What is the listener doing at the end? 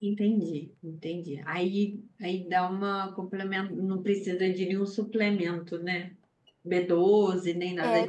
taking over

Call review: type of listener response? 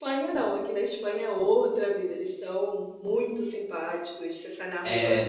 taking over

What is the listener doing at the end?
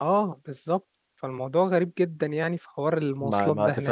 taking over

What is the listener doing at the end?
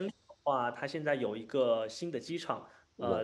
listening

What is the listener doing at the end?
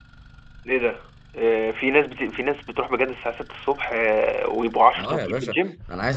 taking over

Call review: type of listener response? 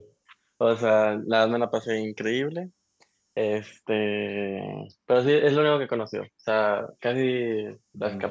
listening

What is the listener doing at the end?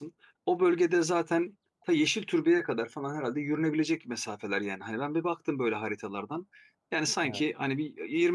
listening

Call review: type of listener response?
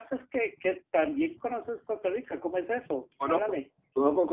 taking over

